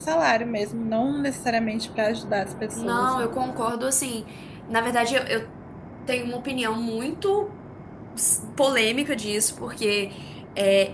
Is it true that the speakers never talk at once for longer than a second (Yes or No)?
Yes